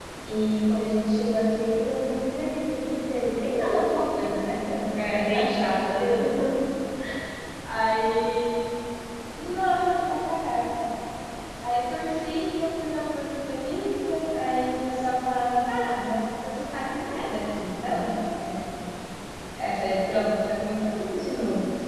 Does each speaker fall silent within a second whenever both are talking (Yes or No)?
No